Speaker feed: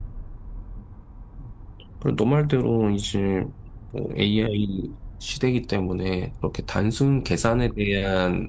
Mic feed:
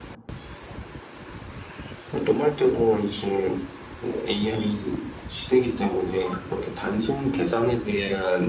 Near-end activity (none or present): none